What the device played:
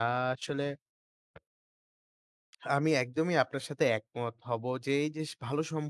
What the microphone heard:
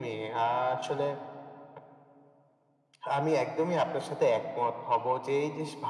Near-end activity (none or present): none